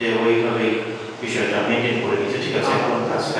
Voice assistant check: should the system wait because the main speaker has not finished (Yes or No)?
No